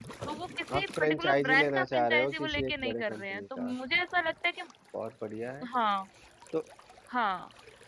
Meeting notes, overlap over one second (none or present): present